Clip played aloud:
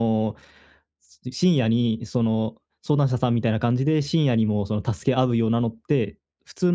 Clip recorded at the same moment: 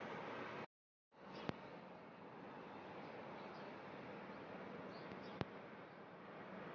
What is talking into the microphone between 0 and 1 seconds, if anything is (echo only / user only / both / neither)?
neither